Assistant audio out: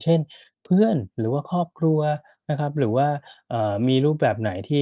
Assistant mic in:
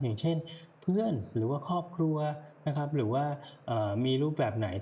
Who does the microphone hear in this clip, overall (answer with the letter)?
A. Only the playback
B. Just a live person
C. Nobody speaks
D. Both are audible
A